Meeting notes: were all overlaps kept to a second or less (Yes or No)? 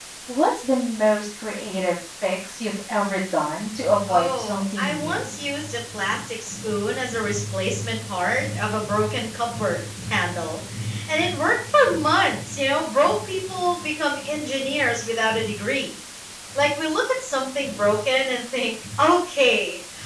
No